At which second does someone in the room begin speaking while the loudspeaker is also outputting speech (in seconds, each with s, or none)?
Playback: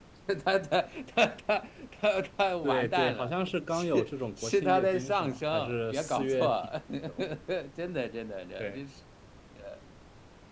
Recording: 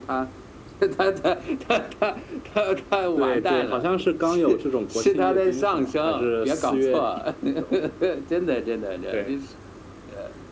none